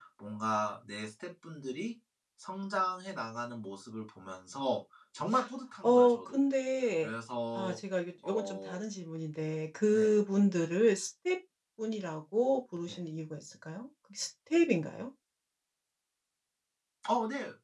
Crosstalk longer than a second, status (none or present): none